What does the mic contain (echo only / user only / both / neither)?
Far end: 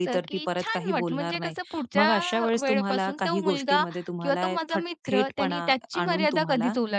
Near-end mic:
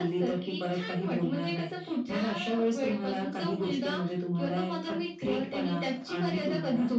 echo only